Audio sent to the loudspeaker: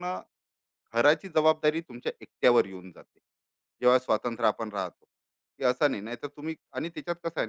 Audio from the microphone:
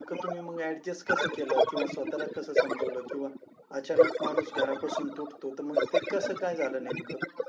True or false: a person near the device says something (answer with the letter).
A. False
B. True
B